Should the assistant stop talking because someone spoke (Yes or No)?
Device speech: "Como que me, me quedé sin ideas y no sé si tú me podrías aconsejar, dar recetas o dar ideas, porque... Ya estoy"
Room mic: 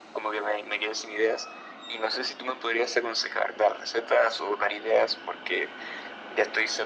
No